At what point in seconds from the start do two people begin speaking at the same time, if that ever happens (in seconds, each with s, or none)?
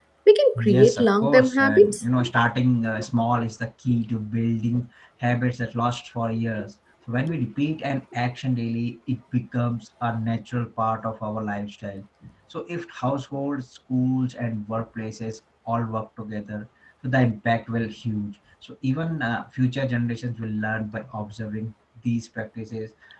0.6 s